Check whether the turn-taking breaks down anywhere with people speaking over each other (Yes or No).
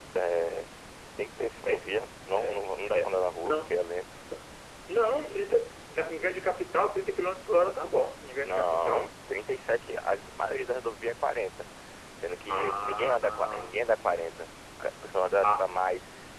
Yes